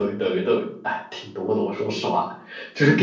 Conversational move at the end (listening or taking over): listening